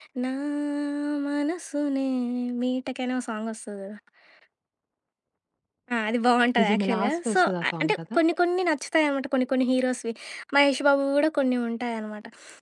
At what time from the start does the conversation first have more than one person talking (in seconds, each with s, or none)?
6.6 s